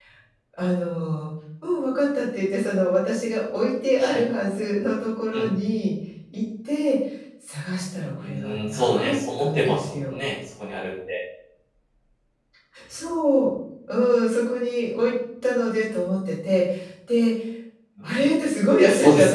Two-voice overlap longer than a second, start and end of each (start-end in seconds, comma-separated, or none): 8.2-10.2